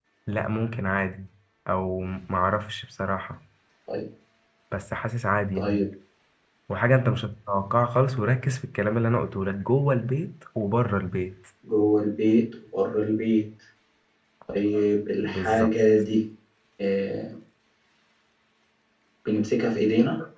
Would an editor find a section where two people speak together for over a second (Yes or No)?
No